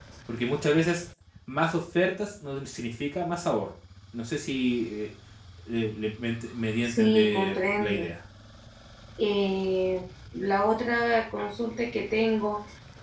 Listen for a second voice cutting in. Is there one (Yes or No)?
Yes